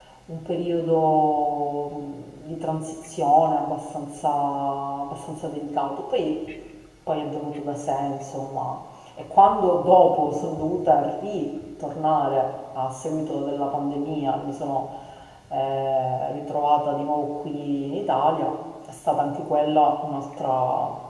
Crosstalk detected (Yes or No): No